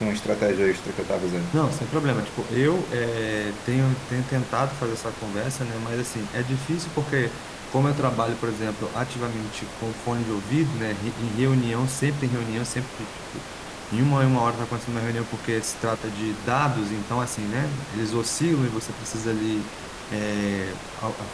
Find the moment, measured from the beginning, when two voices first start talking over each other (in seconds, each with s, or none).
none